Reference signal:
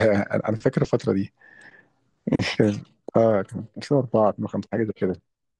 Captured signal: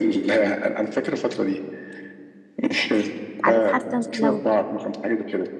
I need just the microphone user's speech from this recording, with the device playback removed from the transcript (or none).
عارف حتى أنت لو